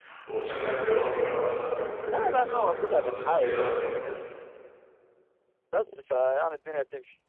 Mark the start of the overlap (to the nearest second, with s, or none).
2 s